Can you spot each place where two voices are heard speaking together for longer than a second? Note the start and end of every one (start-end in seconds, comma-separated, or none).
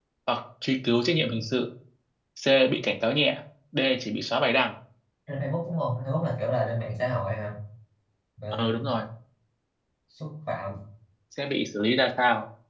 none